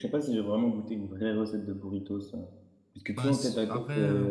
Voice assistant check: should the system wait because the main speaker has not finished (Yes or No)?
No